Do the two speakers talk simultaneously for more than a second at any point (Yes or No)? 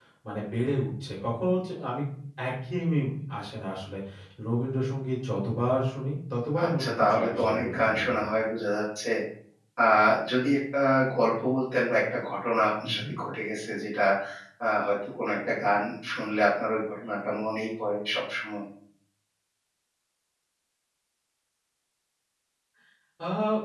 Yes